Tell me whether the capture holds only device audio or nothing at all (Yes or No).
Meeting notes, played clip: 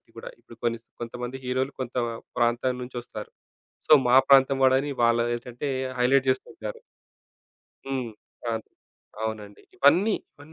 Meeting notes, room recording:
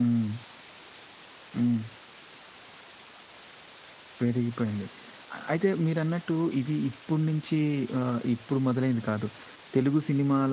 No